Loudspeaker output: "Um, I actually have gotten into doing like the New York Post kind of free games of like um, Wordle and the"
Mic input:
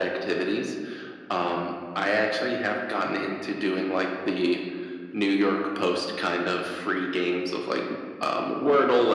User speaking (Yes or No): No